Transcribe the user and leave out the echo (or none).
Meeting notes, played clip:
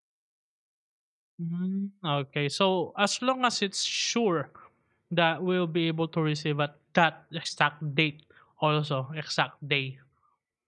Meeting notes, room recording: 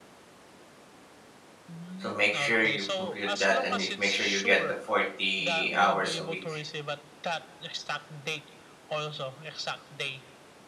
so make sure you compute that and make make sure you get the 40 hours a week